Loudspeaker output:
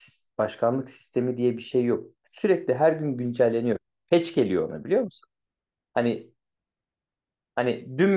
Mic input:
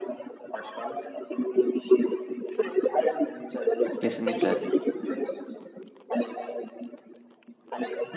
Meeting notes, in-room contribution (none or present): present